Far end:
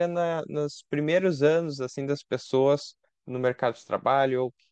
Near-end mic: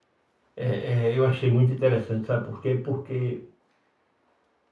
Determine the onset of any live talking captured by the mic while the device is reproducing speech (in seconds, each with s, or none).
0.5 s